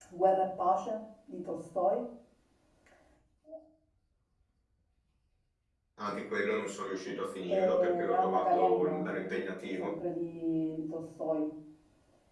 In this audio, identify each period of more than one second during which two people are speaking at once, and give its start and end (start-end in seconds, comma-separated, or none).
7.5-9.0